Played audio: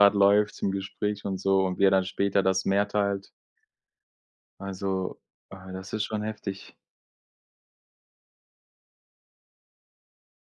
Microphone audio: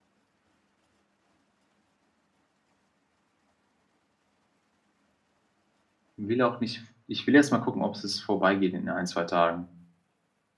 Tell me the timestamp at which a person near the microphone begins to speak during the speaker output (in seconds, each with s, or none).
6.2 s